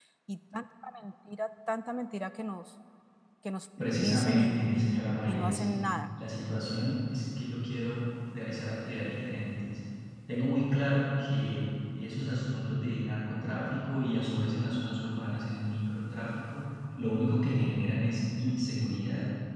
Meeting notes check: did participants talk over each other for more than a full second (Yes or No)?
Yes